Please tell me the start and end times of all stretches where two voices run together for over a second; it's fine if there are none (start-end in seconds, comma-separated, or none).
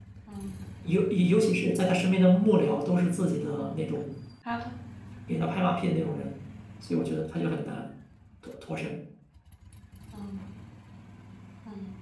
none